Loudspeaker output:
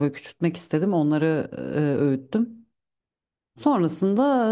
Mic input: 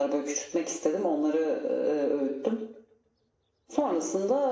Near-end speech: none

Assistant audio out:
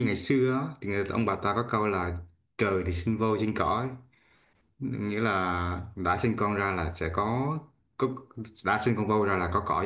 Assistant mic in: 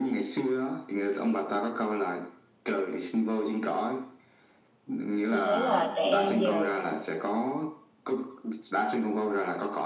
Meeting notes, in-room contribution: present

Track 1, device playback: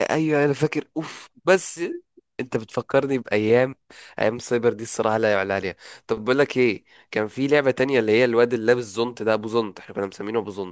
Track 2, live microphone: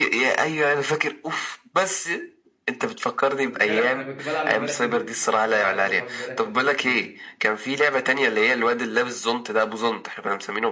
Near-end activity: present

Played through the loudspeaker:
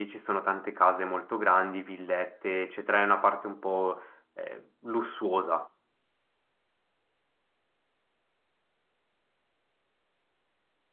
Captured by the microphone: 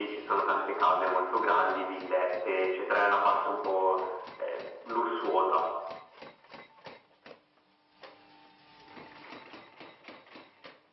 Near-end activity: none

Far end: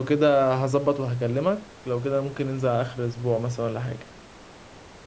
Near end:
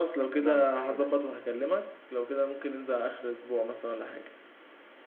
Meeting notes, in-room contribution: present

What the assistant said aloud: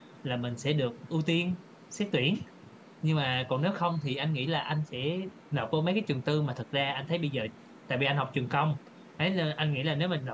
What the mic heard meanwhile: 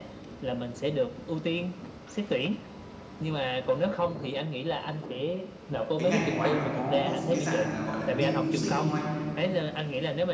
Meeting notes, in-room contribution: present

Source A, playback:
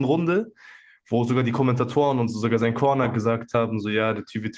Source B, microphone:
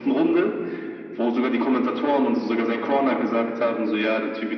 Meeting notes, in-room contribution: none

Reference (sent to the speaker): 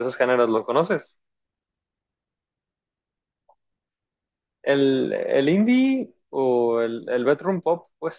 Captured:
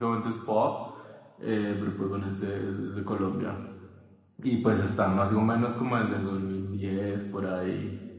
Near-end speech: present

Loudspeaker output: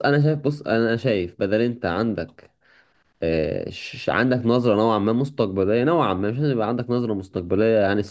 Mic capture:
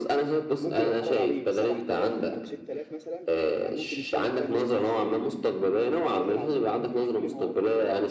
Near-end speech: present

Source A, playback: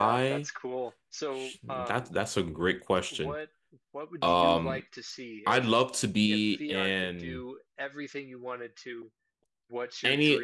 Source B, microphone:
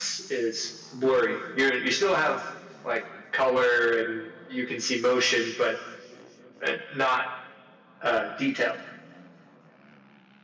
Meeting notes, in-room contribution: present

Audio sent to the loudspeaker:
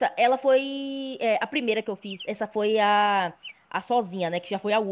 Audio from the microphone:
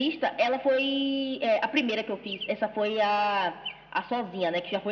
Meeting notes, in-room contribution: none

